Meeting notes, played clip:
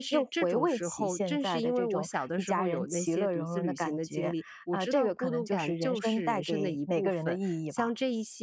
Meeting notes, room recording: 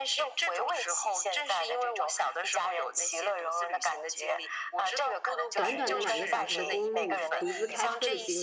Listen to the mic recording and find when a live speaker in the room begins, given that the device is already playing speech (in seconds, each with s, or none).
5.5 s